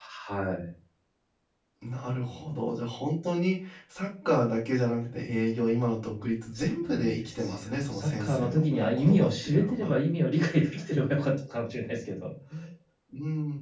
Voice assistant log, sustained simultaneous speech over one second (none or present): present